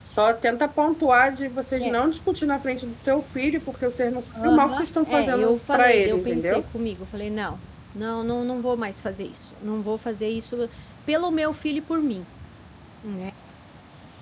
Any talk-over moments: Yes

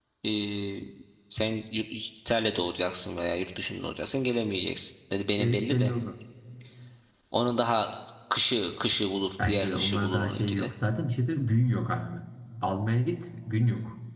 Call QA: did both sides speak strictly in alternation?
No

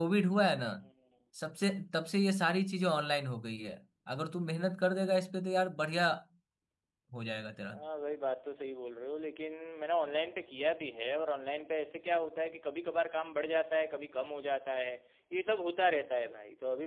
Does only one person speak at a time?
Yes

